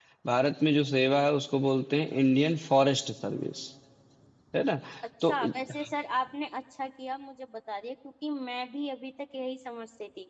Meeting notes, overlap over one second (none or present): none